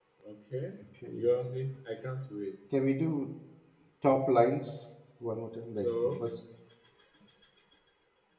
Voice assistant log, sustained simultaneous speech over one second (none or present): none